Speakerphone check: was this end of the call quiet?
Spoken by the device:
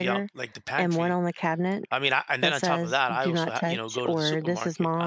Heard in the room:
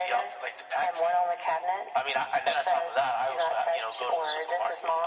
Yes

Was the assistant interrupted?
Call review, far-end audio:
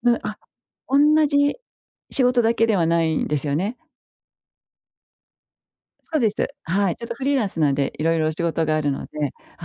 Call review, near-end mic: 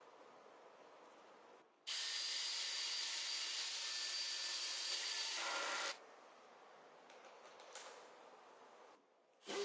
No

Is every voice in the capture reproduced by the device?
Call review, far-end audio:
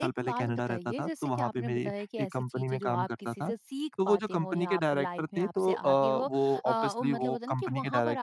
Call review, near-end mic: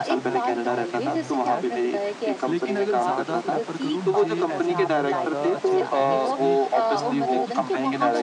No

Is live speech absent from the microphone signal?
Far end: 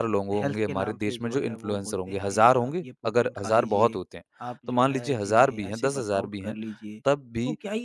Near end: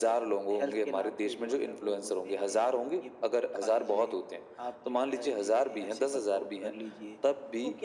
Yes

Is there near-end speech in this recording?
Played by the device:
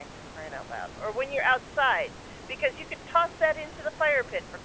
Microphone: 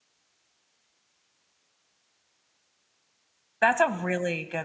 Yes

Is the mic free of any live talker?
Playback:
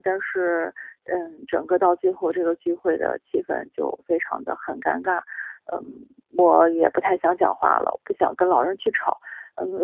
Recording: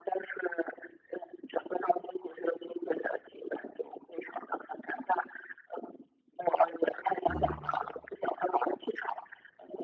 No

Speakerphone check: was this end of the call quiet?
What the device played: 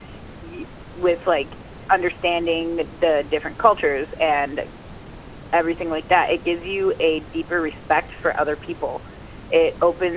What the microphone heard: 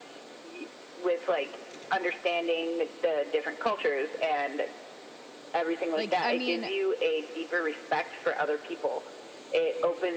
No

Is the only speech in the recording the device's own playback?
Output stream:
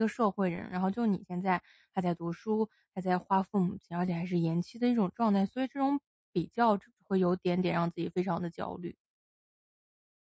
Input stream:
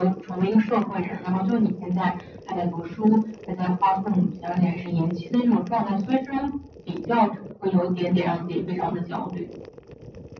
Yes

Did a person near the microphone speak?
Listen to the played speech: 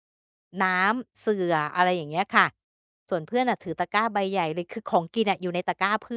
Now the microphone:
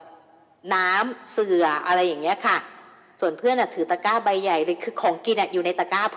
No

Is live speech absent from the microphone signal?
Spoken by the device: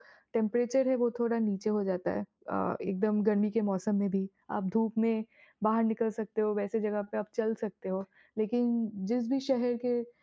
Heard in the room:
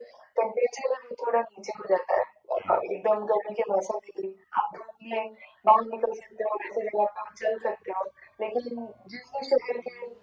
Yes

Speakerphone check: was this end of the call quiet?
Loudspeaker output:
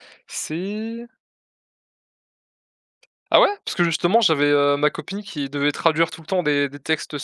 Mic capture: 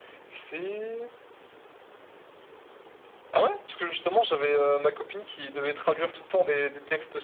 Yes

